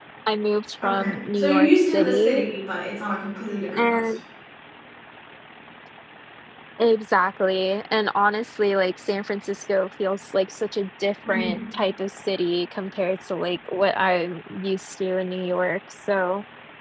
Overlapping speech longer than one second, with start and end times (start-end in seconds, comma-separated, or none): 0.8-2.4